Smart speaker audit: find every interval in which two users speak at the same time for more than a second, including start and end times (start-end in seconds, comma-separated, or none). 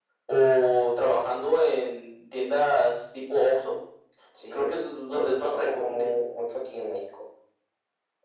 4.5-6.1